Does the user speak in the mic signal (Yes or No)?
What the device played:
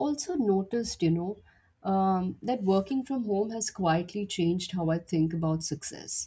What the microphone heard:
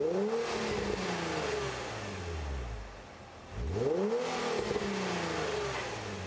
No